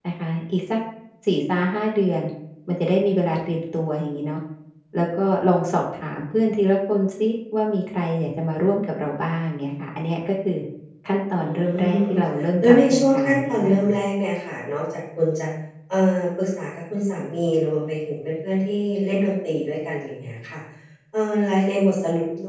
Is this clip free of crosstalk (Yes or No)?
No